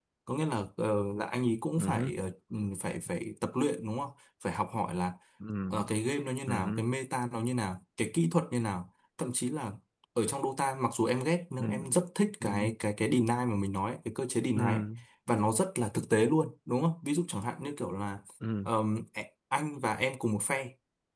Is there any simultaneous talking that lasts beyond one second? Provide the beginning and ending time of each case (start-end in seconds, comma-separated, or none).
none